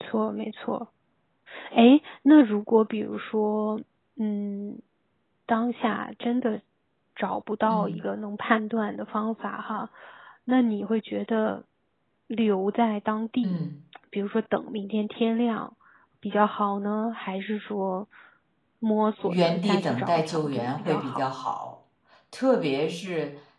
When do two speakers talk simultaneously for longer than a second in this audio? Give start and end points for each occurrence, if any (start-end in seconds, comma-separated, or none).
19.3-21.2